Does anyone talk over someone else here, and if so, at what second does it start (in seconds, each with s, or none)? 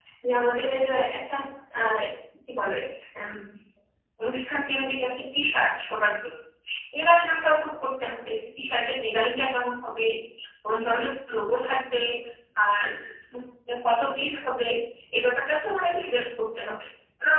none